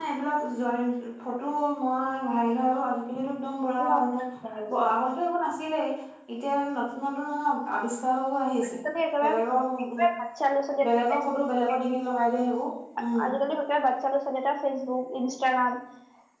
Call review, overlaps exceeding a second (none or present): none